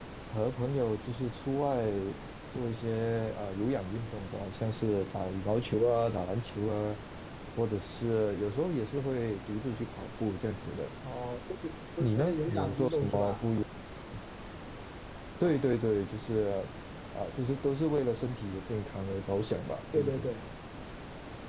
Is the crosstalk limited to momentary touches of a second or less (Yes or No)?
No